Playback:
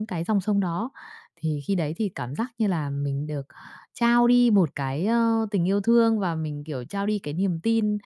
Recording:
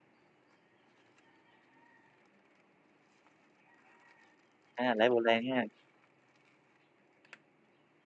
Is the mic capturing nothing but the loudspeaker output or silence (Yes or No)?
No